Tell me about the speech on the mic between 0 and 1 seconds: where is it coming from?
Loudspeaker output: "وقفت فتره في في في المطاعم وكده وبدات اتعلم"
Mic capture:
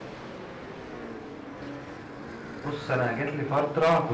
neither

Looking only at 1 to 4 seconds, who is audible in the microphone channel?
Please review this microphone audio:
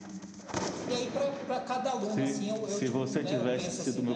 echo only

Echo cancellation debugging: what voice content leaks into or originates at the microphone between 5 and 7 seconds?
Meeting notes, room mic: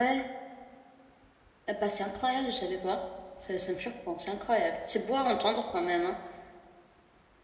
user only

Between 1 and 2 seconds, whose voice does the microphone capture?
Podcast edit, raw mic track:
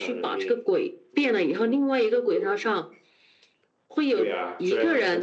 echo only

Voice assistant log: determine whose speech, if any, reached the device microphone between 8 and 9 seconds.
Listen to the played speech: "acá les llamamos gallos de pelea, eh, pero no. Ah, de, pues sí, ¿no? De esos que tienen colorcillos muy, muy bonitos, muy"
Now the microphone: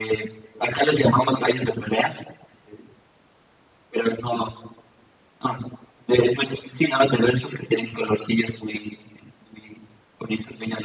echo only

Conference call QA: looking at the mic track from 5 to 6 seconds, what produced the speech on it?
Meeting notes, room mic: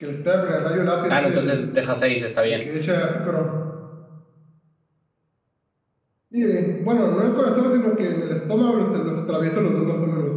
neither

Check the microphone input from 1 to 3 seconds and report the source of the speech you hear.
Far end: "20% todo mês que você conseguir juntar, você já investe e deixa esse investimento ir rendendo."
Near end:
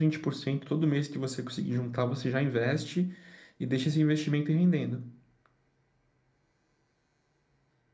echo only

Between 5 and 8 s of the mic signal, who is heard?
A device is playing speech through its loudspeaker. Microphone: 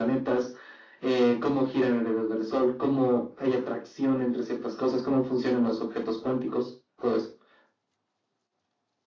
echo only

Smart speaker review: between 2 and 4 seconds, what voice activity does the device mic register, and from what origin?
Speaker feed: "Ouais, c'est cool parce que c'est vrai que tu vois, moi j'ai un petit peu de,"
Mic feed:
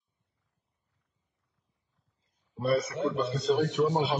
both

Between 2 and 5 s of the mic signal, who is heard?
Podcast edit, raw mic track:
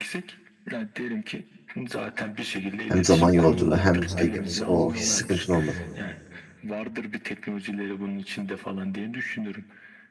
both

